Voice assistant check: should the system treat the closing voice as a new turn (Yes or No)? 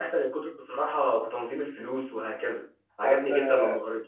Yes